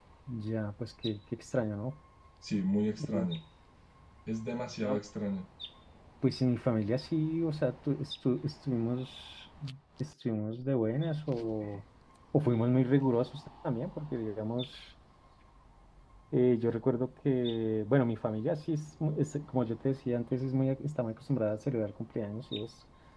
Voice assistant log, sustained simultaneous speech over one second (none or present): none